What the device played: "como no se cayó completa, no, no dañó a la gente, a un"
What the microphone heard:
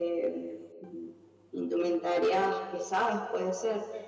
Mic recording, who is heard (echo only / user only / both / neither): user only